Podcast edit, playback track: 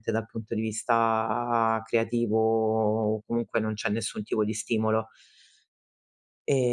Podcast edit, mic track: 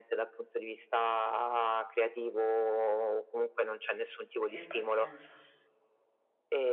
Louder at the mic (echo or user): echo